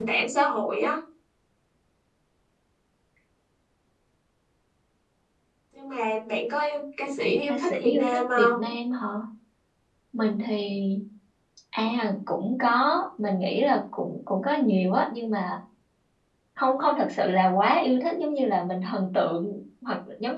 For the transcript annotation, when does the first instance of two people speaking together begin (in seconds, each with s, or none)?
7.4 s